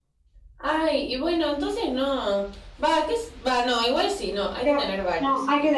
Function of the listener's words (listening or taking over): taking over